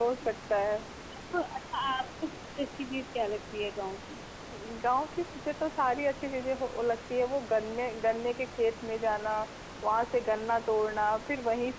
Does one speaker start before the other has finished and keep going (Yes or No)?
No